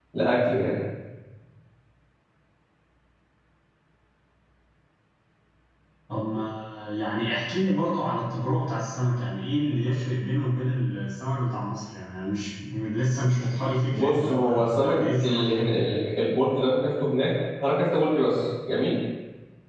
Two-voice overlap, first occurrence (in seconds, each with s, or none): 13.9 s